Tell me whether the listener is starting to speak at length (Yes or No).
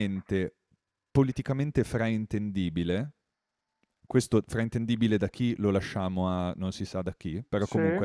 No